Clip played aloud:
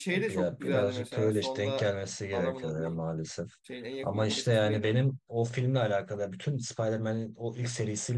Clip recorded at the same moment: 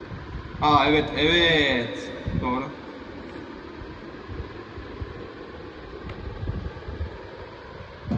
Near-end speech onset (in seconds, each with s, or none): 0.6 s